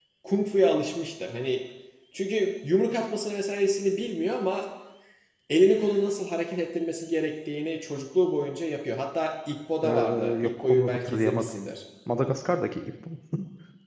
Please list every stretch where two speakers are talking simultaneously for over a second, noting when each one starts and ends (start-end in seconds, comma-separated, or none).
9.8-11.5